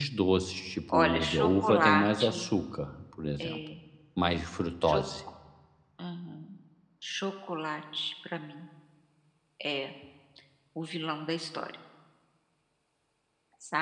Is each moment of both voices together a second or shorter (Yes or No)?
No